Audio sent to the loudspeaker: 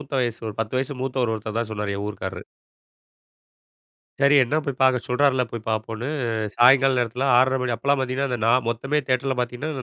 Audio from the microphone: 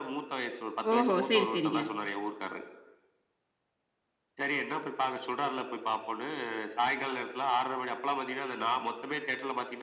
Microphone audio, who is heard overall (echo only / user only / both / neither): both